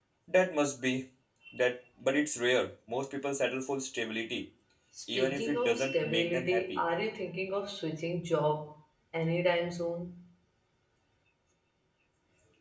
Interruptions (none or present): present